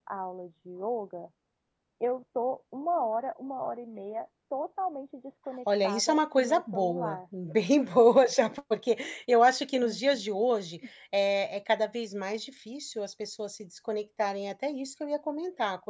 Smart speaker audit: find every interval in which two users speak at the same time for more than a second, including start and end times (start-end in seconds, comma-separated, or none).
5.8-7.2